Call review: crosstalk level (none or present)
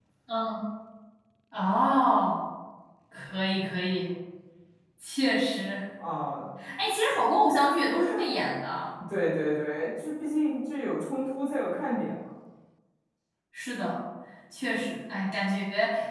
none